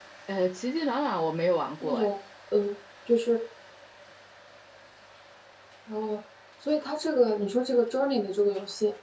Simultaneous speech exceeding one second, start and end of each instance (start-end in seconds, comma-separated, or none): none